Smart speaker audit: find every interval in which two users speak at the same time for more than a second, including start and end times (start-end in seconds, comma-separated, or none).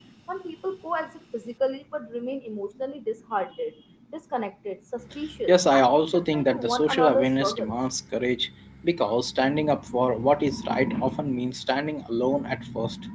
5.5-7.8